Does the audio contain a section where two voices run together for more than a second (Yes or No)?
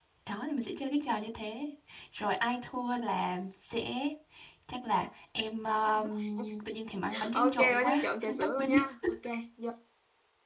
Yes